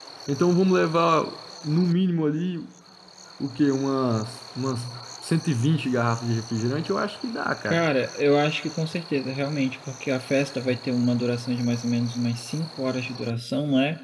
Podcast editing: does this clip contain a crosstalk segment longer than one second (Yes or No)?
No